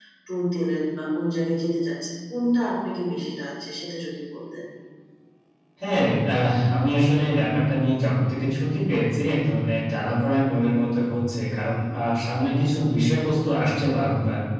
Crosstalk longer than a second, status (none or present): none